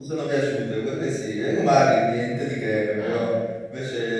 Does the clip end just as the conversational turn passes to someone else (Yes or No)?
No